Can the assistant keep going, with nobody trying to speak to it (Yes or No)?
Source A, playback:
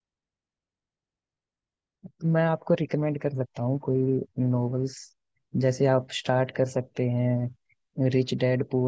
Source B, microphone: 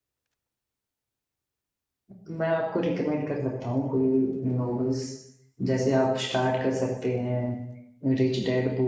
Yes